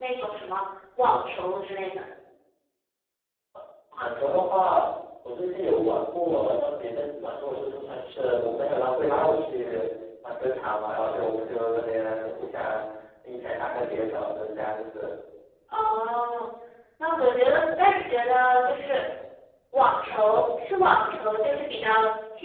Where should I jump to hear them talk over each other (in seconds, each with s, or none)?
none